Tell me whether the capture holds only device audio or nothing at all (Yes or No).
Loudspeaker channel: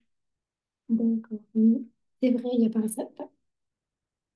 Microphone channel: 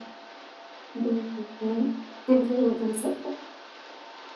Yes